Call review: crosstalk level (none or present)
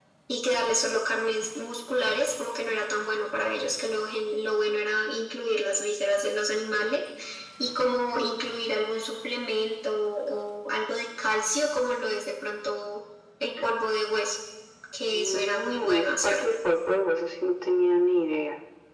present